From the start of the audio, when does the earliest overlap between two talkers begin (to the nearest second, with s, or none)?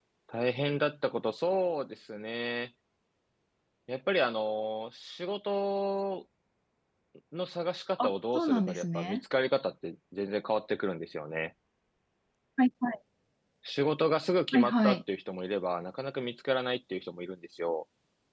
8 s